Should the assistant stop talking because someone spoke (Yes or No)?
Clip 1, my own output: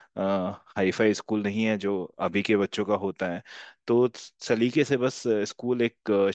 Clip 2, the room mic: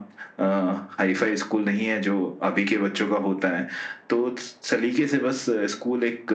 No